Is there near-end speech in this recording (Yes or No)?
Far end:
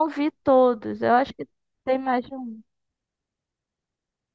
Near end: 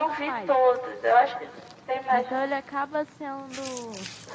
Yes